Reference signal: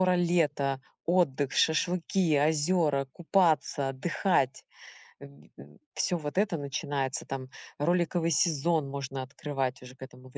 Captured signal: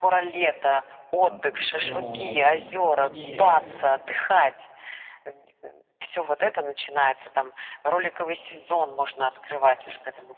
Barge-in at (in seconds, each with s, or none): 1.2 s